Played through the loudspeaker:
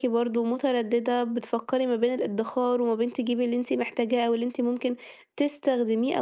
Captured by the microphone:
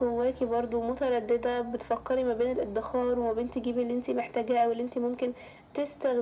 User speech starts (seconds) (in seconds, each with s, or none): none